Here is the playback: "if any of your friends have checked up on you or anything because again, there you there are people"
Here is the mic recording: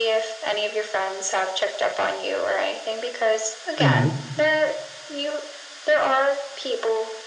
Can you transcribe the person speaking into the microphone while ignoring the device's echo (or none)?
hmm